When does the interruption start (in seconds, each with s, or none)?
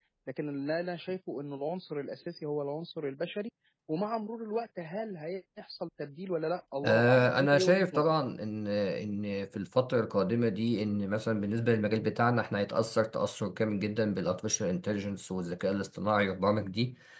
6.8 s